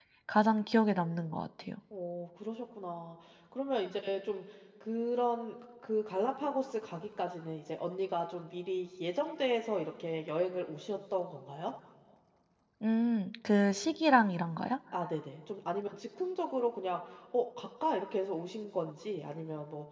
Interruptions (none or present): none